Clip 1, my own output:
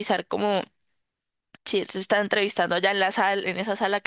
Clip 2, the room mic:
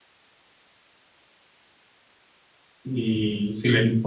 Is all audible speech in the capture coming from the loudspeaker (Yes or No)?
No